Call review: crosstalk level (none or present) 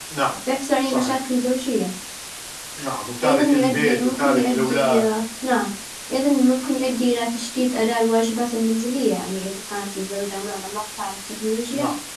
present